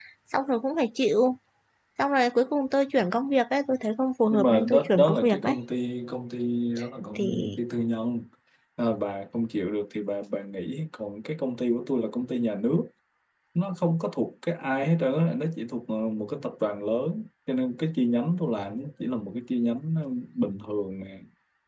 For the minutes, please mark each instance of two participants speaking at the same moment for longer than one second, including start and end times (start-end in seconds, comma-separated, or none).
4.3-5.5